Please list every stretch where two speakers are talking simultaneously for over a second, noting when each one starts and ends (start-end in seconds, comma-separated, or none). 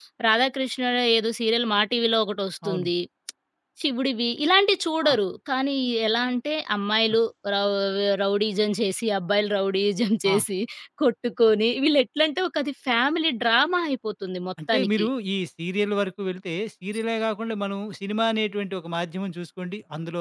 none